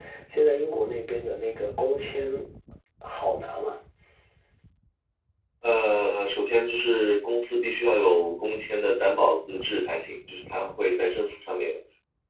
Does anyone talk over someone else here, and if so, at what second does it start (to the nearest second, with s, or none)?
none